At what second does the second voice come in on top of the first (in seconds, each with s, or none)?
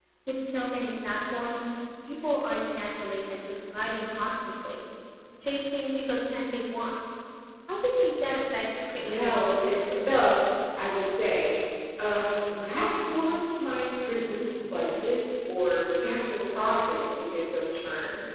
8.9 s